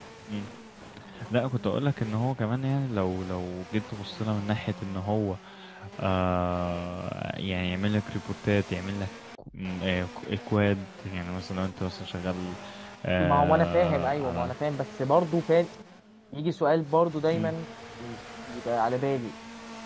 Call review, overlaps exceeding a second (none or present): present